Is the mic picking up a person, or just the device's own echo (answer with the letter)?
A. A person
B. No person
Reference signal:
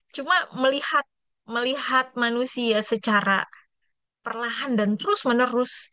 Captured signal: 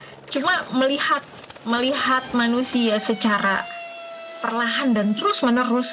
B